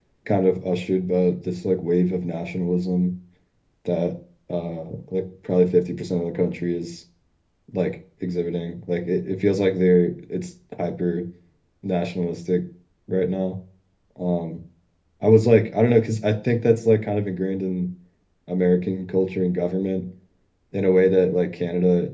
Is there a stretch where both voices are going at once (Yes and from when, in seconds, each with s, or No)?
No